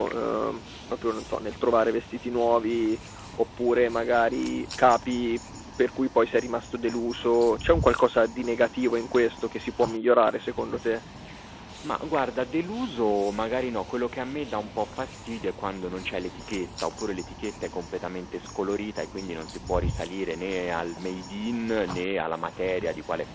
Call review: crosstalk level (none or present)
none